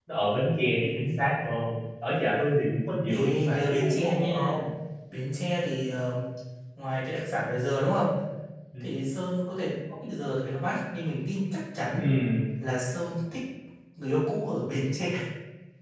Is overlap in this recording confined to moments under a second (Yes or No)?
No